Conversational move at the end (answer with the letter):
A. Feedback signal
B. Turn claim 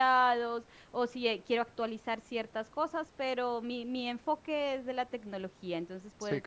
B